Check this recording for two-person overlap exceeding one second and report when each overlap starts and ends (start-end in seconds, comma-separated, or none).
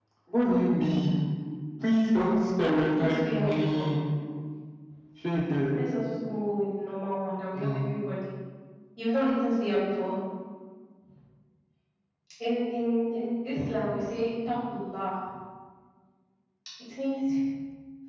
2.6-3.9